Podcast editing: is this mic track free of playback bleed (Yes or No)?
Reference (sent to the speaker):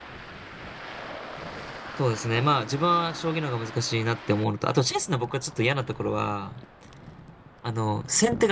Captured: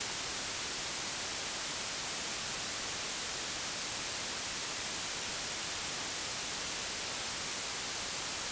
Yes